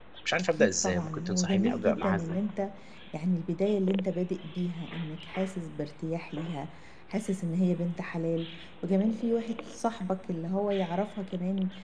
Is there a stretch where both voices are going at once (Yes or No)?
Yes